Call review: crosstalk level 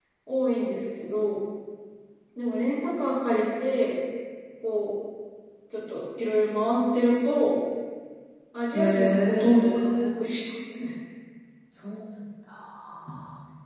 present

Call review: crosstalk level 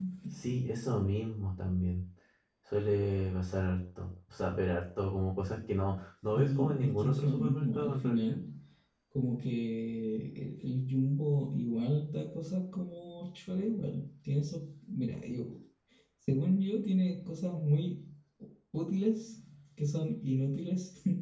present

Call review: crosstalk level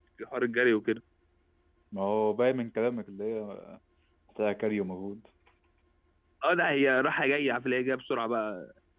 none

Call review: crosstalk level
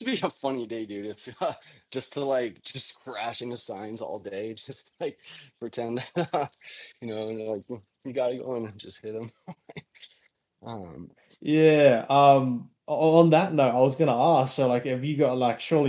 none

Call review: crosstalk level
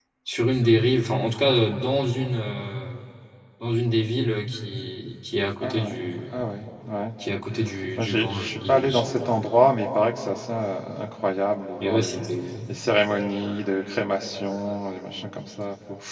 present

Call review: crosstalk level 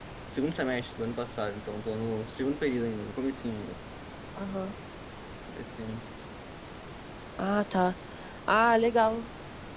none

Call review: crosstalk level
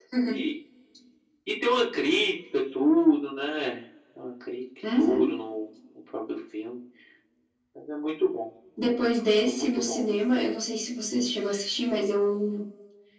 present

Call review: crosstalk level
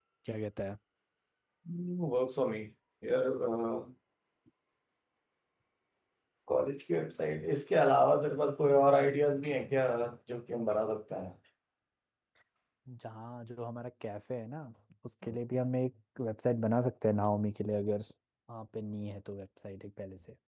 none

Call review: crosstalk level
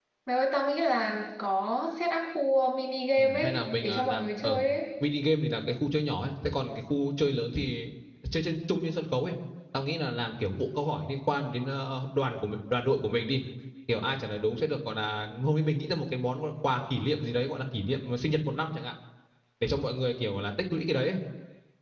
present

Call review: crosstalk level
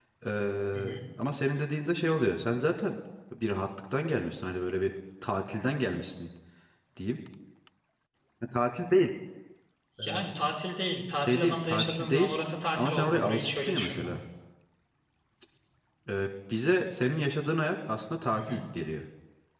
present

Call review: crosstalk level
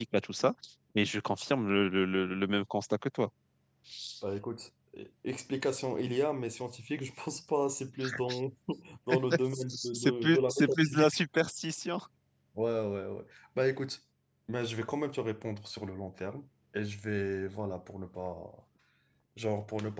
present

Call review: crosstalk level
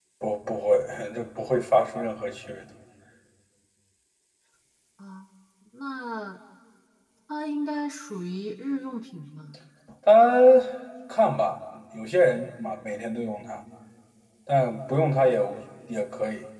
none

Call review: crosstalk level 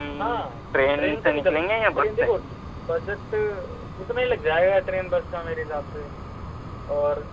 present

